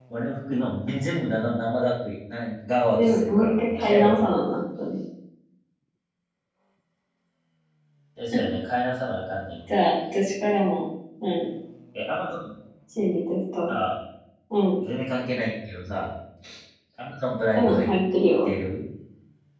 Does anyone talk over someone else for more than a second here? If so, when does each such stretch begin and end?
3.0-4.2

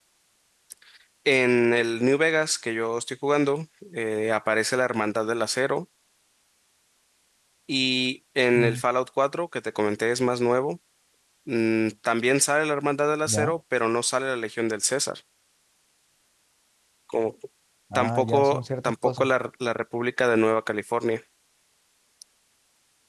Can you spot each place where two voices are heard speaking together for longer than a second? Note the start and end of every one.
17.9-19.2

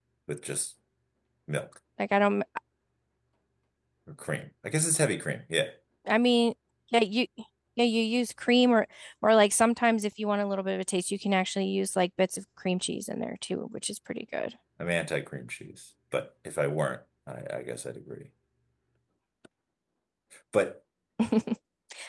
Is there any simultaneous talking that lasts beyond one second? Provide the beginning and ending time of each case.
none

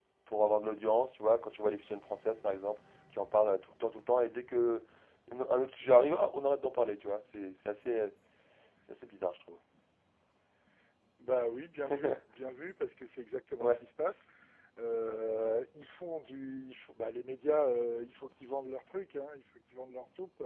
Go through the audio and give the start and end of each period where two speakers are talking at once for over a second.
none

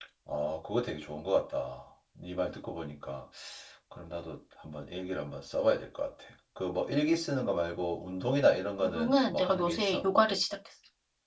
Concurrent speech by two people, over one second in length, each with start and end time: 8.8-10.0

